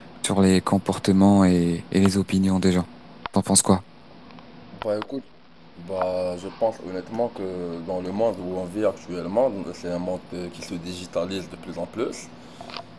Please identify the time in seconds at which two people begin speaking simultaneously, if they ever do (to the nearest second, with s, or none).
none